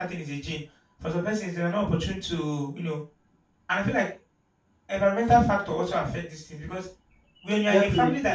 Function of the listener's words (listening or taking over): listening